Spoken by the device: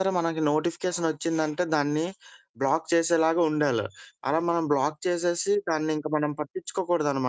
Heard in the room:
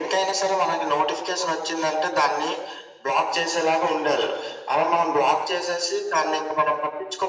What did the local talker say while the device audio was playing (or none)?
none